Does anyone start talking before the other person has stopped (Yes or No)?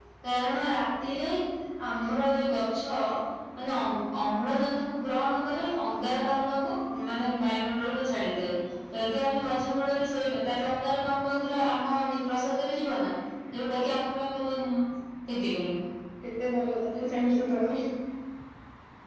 No